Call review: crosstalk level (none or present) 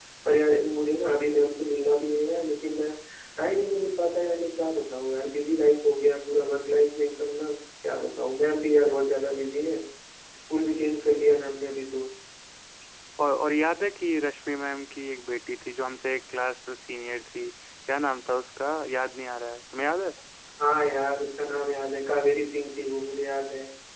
none